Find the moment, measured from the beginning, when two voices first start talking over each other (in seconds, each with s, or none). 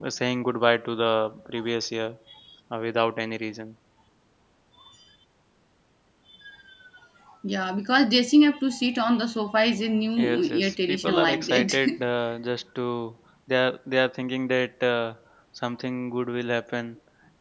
10.2 s